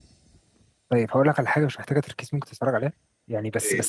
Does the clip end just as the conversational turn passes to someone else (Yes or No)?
No